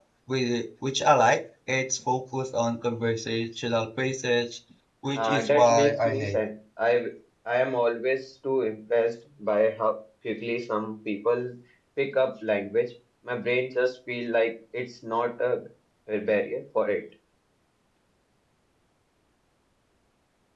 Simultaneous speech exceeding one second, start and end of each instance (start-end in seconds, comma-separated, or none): 5.1-6.4